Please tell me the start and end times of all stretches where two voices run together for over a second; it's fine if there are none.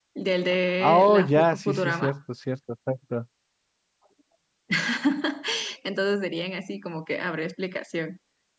0.8-2.1

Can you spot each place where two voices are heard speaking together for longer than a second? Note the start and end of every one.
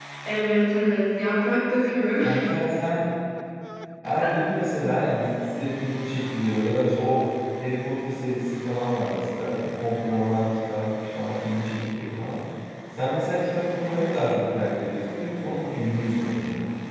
none

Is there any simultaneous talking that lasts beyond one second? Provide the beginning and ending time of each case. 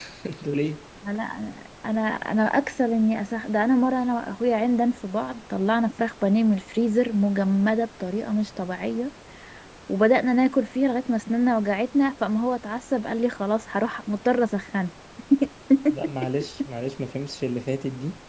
none

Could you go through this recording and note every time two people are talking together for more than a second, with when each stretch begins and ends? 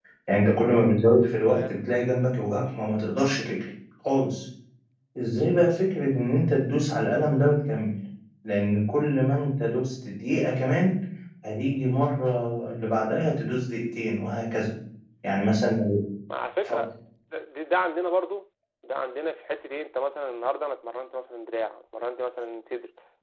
none

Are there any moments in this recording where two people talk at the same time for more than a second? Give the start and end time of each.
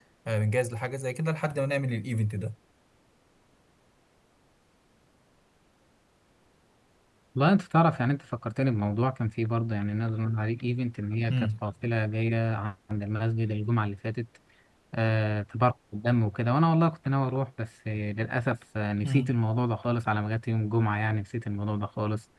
none

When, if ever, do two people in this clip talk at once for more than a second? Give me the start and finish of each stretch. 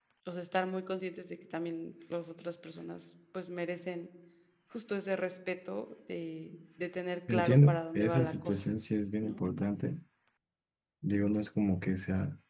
7.3-8.6

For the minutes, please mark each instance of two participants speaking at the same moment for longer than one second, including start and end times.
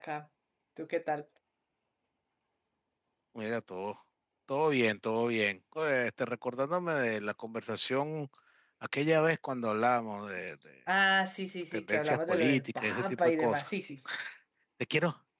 11.7-13.7

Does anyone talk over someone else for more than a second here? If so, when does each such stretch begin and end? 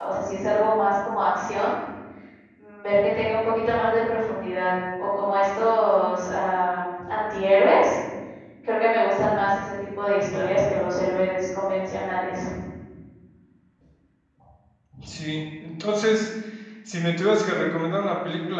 none

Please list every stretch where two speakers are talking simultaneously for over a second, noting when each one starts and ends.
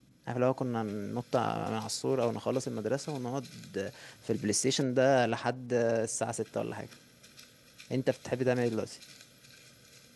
none

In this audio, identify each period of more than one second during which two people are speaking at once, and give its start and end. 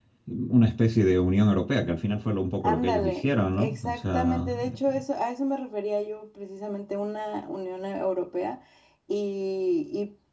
2.6-5.0

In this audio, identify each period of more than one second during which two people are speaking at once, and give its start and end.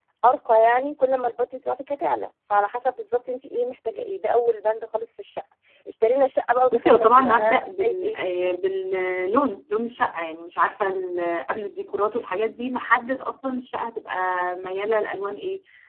6.7-8.2

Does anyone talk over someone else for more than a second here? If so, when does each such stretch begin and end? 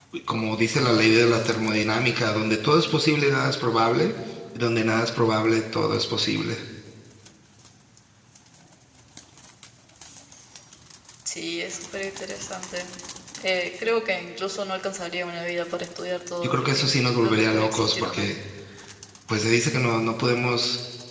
16.4-18.3

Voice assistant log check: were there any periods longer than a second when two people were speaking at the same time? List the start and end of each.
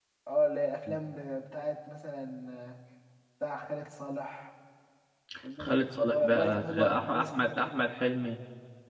5.6-7.3

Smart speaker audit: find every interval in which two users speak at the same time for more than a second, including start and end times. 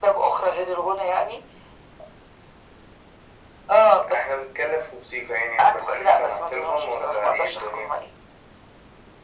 5.6-7.9

